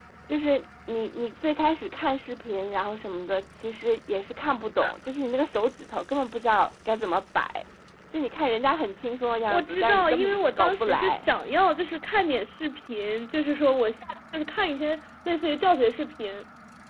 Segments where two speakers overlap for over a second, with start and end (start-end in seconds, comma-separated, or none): 9.5-11.2